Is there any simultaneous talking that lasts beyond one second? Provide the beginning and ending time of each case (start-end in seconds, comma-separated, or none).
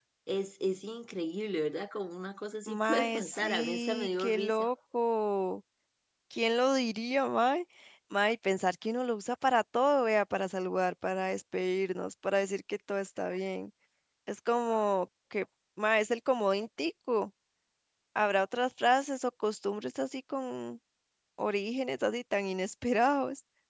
2.7-4.7